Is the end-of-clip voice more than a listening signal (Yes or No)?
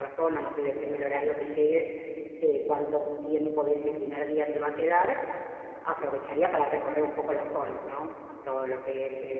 No